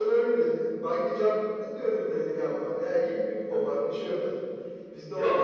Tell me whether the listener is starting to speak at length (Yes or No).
Yes